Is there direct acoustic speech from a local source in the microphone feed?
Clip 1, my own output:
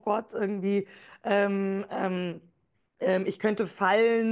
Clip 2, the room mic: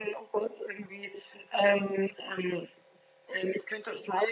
No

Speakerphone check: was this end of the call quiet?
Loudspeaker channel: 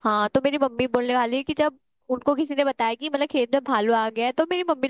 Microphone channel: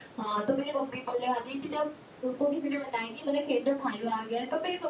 Yes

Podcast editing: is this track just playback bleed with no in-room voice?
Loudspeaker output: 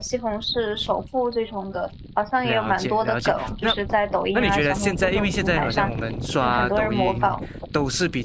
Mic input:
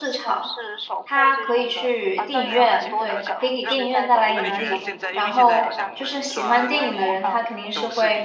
No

